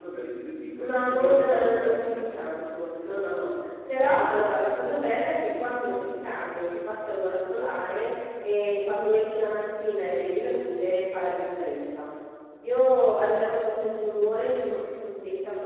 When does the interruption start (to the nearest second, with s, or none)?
1 s